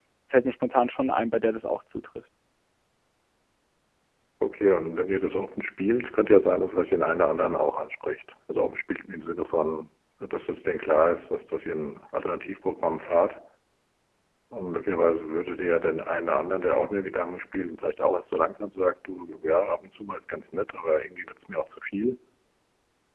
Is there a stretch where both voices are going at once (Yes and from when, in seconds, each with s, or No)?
No